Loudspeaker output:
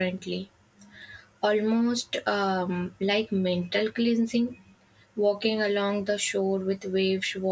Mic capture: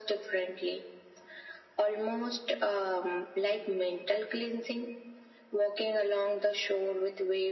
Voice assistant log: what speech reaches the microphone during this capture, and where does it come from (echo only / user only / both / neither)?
echo only